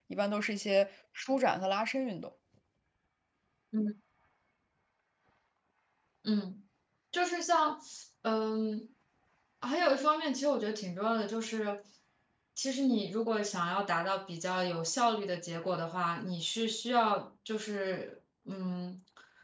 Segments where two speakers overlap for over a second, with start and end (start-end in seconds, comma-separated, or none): none